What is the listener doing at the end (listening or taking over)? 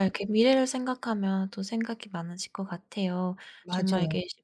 listening